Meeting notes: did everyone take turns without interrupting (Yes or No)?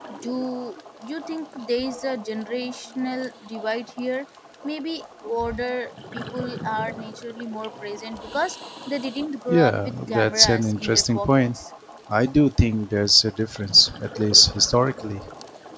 No